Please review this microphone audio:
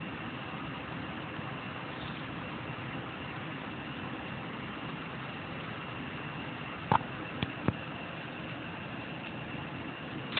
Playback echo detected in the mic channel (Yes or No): No